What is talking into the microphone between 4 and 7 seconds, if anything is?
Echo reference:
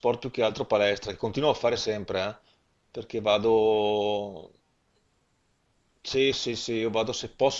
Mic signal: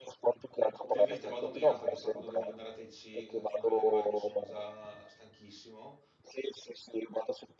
both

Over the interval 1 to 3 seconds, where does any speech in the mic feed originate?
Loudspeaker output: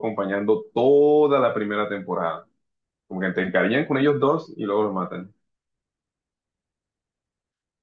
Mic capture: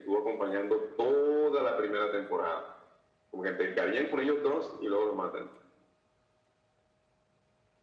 echo only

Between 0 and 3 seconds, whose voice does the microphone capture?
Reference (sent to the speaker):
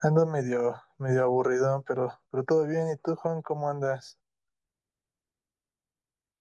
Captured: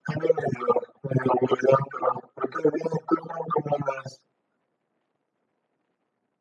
echo only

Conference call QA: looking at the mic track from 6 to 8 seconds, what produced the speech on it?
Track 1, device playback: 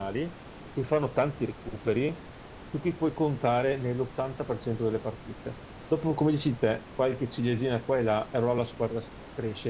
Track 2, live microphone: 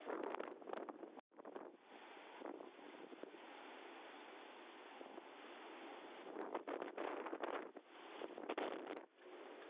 neither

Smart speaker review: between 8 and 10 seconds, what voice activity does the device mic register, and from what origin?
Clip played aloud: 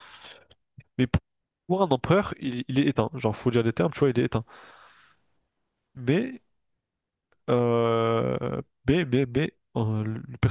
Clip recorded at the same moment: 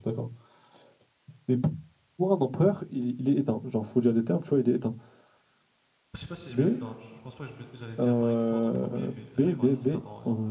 both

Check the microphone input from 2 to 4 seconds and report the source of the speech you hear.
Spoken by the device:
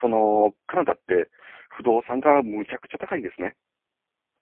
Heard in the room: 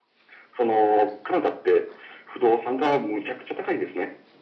echo only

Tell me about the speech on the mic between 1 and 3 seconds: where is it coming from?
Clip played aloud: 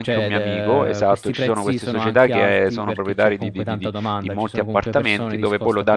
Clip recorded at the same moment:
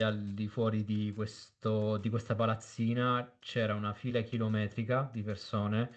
user only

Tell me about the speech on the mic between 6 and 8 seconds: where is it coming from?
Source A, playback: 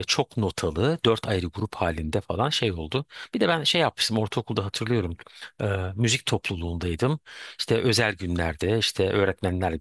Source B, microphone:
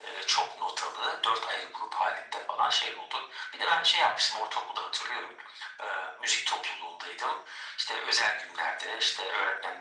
echo only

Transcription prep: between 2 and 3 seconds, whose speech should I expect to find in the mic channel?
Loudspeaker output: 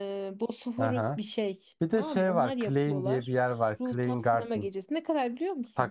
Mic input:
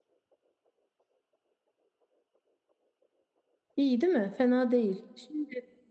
neither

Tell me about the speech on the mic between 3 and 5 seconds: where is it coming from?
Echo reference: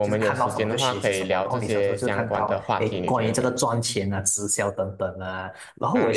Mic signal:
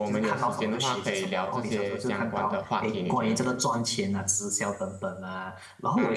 echo only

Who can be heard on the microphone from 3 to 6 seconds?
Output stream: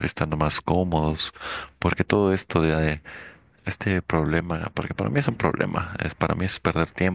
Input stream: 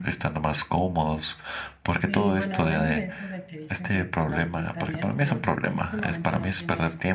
both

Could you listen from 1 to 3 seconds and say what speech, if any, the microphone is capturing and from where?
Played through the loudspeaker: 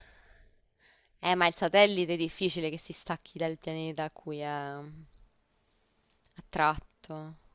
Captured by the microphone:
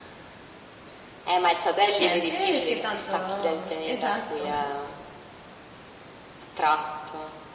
both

